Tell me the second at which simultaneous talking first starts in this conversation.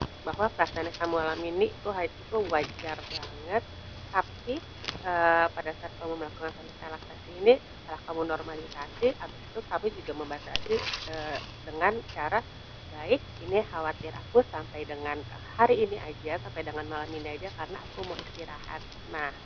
none

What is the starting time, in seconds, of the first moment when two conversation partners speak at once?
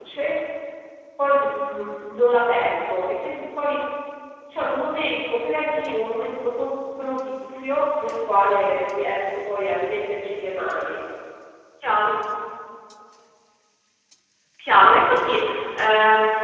none

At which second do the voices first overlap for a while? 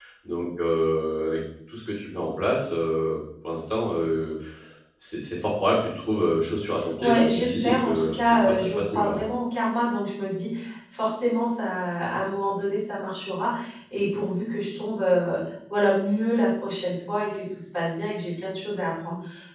7 s

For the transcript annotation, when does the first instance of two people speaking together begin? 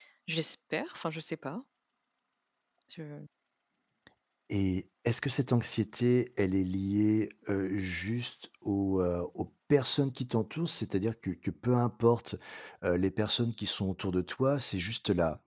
none

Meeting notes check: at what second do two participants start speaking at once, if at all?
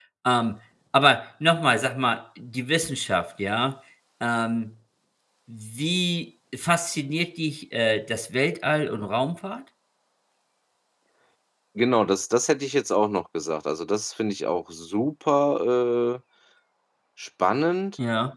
none

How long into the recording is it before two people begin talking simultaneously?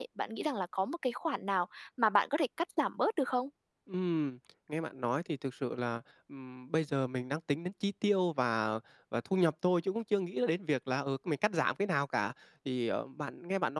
none

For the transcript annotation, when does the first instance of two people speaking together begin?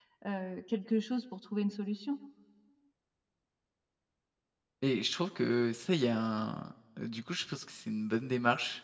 none

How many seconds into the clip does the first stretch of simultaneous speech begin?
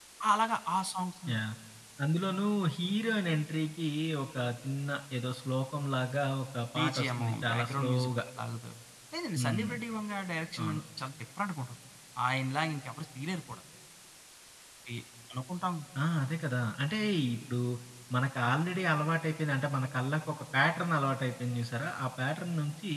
7 s

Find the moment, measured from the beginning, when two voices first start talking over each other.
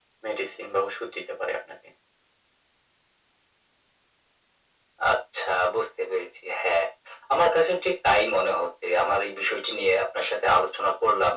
none

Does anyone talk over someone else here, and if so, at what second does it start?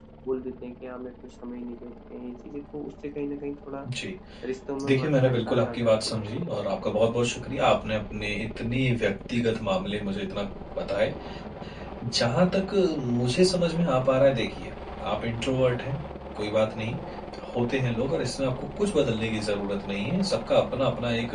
5 s

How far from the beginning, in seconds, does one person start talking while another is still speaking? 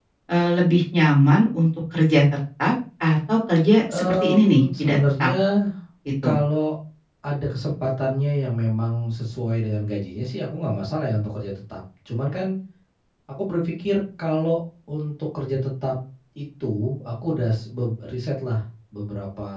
4 s

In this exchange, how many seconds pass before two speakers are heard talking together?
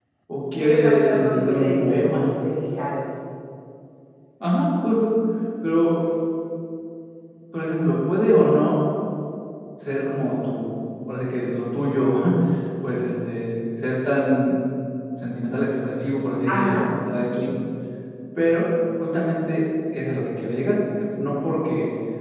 1 s

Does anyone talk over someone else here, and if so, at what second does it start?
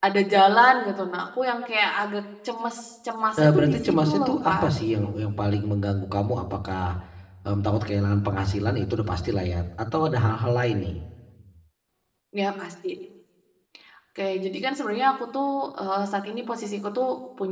3 s

